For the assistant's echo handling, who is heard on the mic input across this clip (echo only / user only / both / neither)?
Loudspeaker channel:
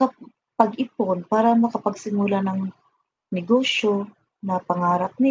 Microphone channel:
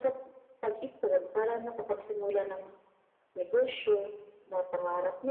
echo only